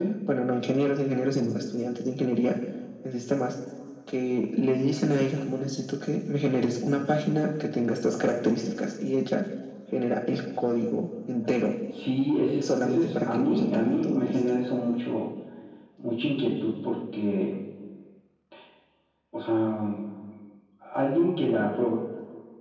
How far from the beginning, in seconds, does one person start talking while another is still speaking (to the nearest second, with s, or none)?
13 s